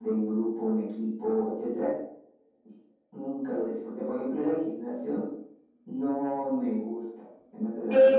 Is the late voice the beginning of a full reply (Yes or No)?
Yes